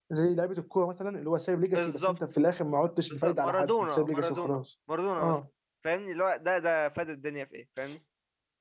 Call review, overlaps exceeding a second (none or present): present